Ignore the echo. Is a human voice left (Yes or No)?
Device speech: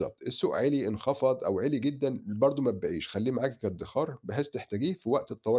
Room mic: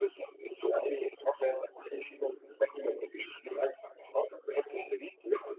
No